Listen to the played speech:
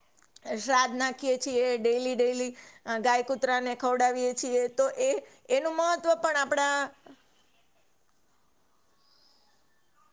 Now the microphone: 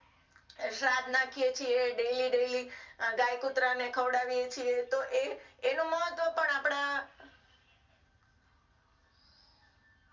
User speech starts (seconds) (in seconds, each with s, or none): none